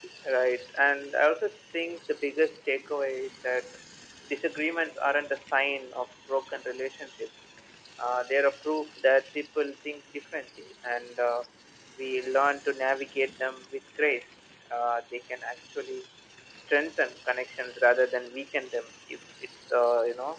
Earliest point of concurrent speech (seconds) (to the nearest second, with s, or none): none